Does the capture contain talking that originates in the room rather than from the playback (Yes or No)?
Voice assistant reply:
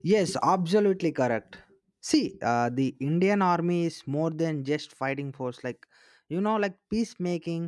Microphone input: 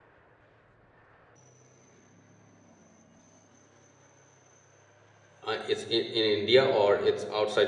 Yes